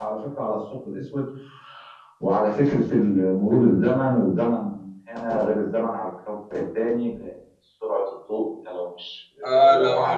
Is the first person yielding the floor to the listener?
Yes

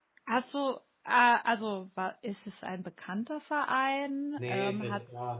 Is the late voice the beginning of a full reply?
Yes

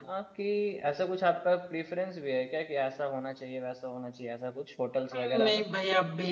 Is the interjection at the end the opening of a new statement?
Yes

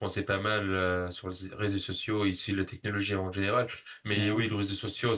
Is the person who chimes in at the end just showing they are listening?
Yes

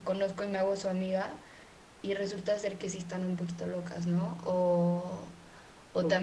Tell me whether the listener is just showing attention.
No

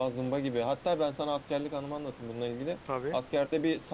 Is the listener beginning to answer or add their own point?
No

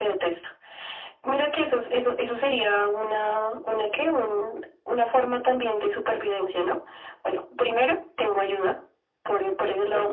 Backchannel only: Yes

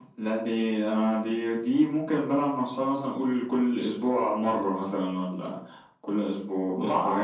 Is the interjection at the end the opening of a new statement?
Yes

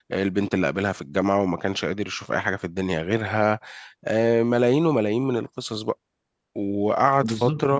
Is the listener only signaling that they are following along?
No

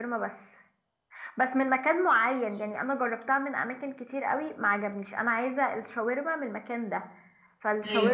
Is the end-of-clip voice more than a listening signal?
No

